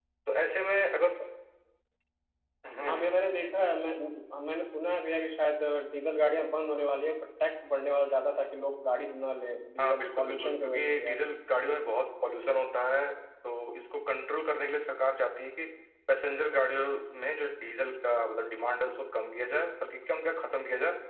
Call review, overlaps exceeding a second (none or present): present